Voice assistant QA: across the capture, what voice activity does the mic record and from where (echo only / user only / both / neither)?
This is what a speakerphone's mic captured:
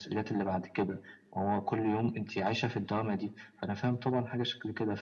echo only